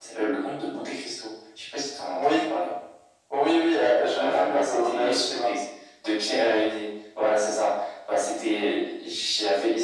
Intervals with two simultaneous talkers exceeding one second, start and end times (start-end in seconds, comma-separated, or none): 4.1-5.5